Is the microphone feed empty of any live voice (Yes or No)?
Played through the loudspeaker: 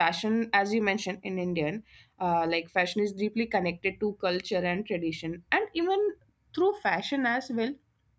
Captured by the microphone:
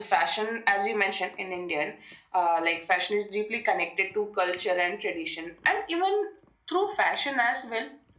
Yes